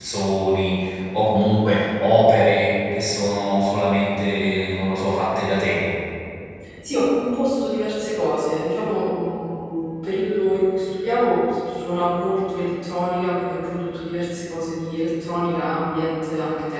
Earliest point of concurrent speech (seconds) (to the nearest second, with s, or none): none